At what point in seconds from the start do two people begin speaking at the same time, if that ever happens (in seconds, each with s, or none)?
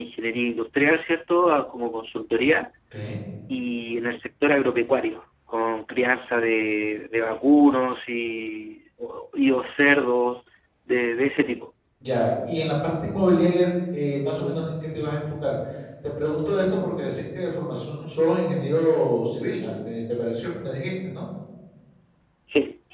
none